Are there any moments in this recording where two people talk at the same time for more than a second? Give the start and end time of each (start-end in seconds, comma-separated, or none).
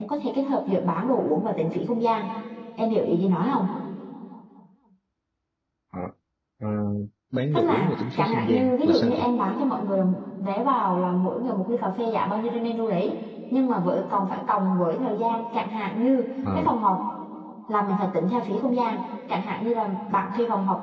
7.5-9.3